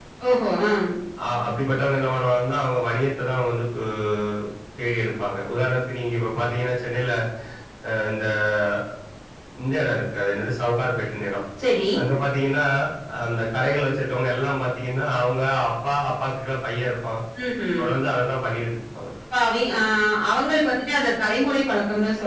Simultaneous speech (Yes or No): No